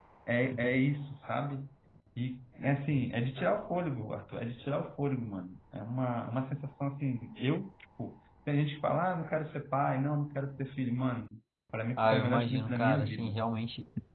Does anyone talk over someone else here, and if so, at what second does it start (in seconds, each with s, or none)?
12.0 s